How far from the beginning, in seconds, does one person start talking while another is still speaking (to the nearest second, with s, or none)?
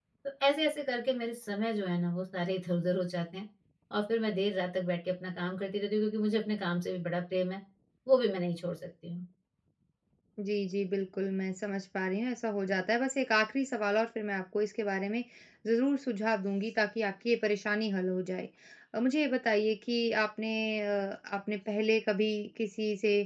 none